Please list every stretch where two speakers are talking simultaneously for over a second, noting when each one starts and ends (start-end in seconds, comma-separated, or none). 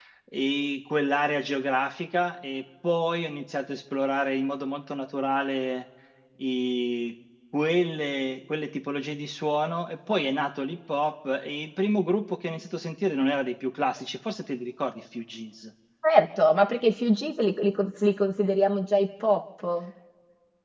none